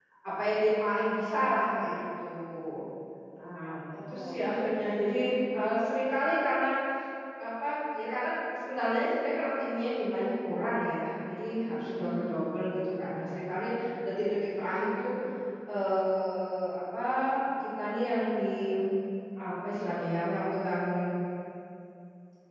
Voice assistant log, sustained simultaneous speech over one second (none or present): present